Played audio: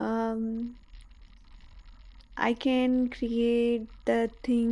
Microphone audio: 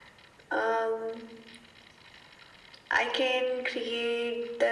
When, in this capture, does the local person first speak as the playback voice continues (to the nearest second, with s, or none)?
none